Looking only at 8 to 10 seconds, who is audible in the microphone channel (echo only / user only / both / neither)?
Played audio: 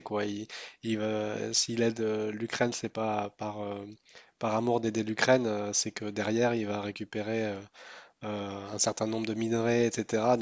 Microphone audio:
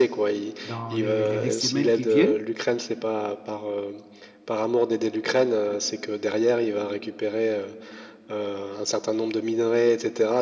echo only